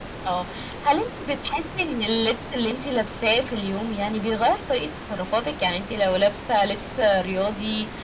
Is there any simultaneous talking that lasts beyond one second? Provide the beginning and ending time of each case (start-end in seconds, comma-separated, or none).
none